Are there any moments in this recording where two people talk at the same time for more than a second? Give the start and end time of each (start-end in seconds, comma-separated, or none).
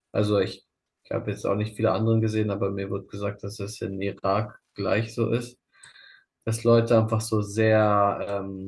none